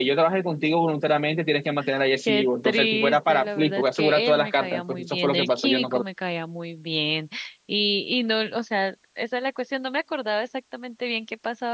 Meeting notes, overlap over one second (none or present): present